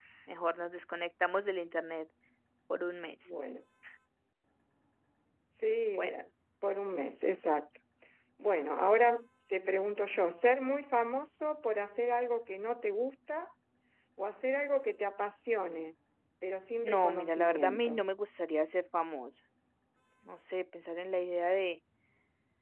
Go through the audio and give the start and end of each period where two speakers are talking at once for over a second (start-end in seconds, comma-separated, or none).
16.8-18.0